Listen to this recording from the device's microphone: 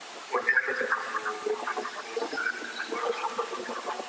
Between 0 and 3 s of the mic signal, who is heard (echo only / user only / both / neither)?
echo only